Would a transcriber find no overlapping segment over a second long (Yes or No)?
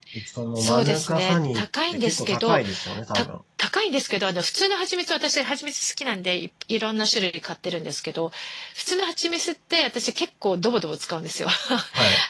No